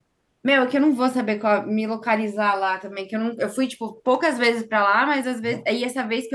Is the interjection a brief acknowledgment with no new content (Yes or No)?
Yes